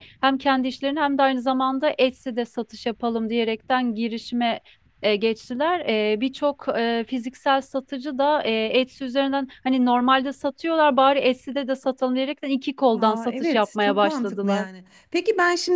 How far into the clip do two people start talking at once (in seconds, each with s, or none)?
12.9 s